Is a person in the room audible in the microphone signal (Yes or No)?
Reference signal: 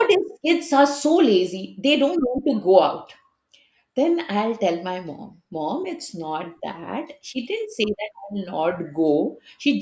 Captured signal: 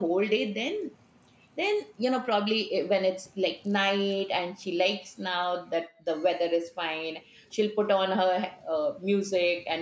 Yes